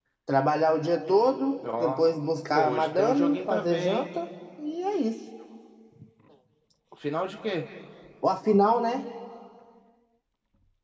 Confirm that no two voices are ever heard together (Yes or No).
No